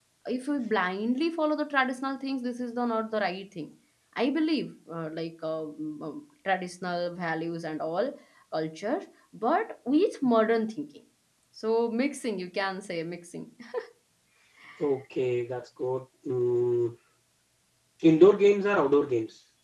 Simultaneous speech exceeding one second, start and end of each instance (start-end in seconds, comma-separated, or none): none